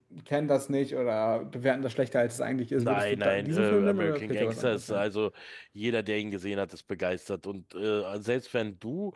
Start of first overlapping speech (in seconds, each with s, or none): 2.8 s